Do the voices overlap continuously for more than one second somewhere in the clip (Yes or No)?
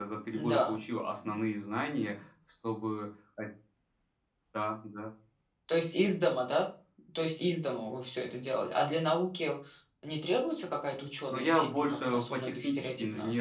Yes